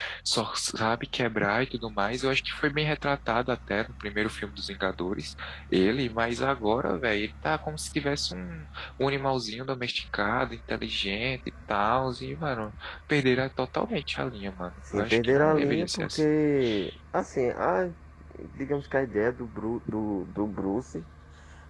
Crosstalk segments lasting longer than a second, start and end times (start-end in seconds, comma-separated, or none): 14.9-16.2